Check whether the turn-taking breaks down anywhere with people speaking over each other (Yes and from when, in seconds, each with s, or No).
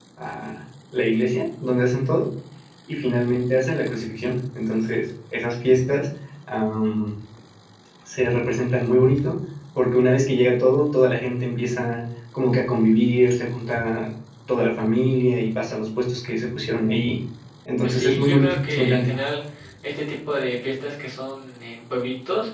Yes, from 17.8 s